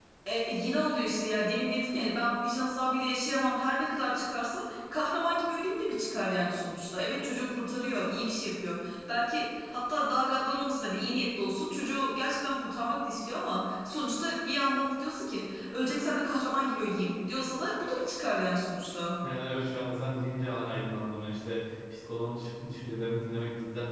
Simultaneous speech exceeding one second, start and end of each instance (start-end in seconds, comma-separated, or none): none